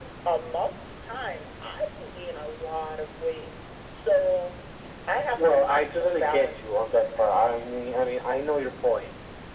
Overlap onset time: 5 s

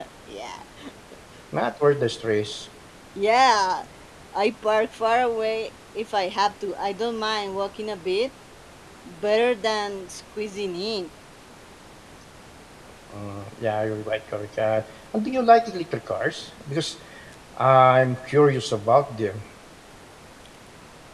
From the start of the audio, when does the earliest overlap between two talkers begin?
none

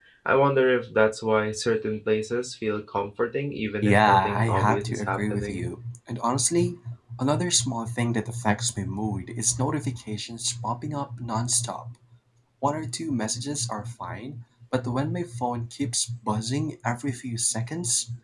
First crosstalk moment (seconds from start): 4 s

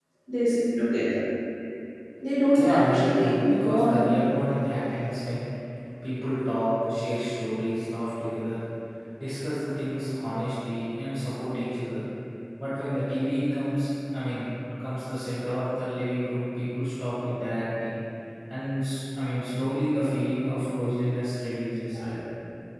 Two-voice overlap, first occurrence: 3 s

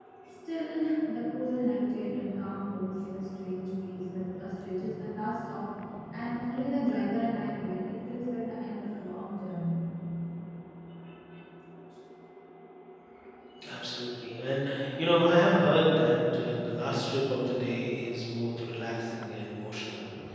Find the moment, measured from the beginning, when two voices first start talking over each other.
none

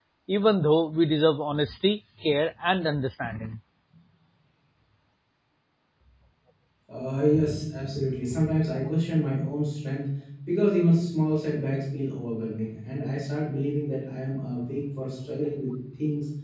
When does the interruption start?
none

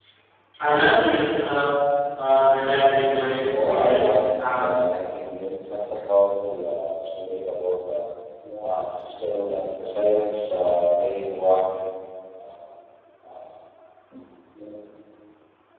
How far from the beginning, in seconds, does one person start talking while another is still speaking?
4 s

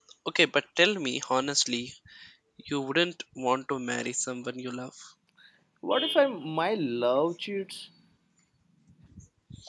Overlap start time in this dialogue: none

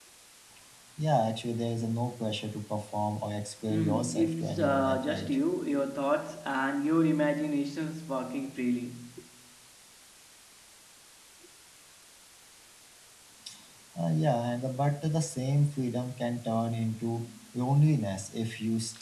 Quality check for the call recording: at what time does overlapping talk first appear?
4 s

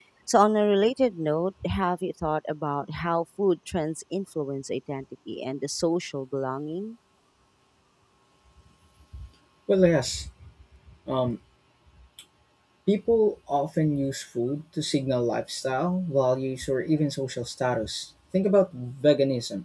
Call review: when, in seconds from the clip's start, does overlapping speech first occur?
none

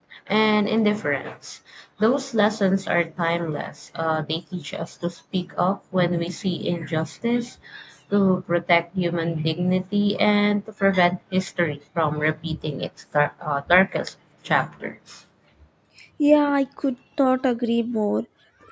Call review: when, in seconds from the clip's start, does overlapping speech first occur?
none

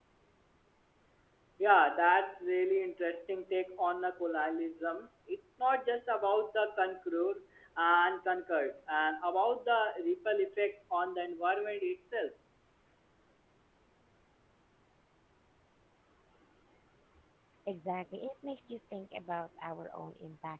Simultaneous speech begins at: none

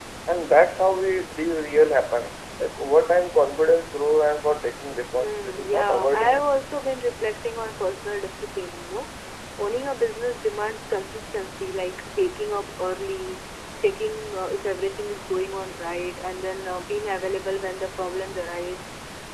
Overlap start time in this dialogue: 5 s

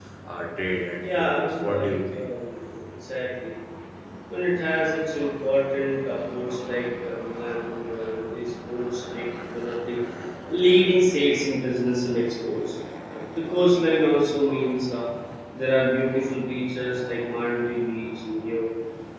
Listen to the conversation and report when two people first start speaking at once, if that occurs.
1 s

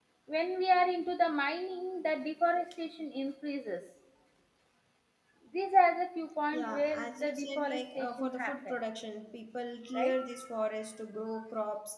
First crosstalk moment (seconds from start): 7 s

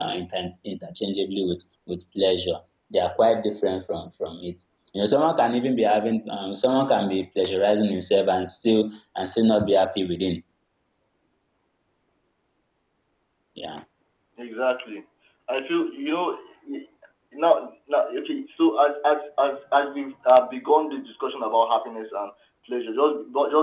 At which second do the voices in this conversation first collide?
none

